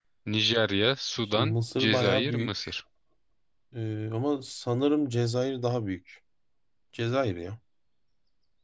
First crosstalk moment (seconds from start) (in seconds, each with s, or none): 1.3 s